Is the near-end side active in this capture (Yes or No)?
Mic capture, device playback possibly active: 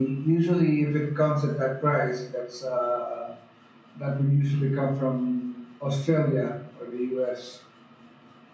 No